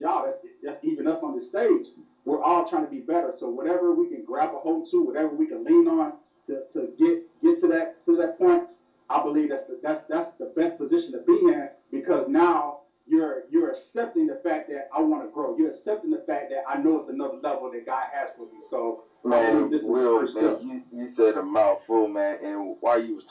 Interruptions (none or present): present